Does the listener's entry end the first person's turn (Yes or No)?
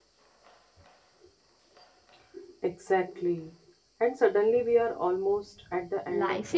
Yes